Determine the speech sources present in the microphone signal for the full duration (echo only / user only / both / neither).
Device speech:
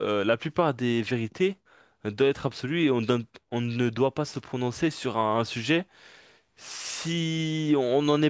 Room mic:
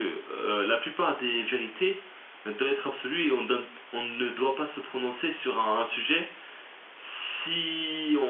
echo only